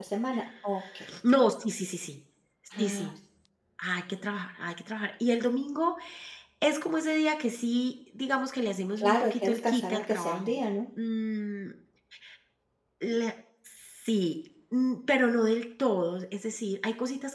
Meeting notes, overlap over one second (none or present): present